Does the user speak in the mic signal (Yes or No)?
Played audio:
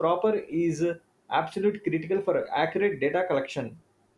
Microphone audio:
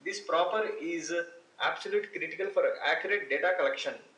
No